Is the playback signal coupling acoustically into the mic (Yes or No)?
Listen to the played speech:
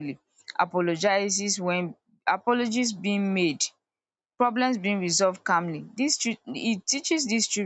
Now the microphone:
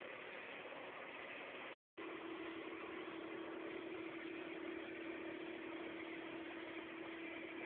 No